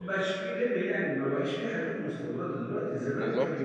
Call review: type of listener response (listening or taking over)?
listening